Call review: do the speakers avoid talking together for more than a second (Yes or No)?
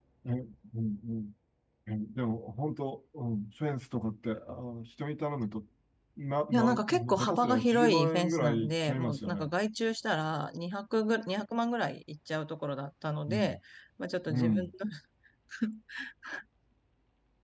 No